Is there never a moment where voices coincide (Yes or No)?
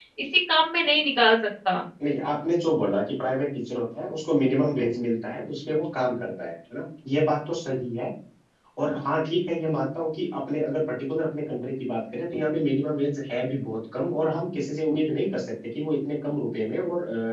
Yes